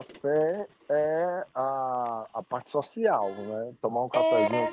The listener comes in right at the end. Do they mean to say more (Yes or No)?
Yes